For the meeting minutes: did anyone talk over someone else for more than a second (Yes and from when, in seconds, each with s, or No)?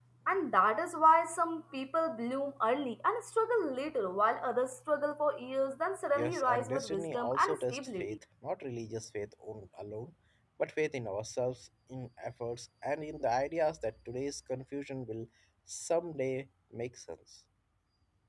Yes, from 6.2 s